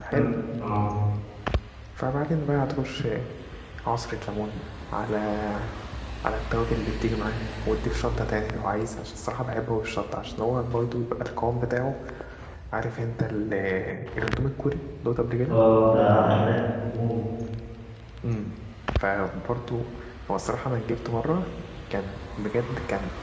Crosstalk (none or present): none